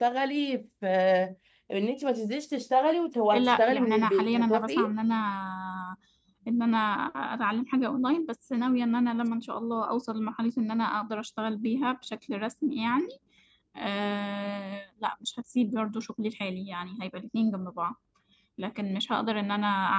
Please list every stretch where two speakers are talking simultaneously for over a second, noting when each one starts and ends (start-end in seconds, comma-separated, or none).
3.3-4.9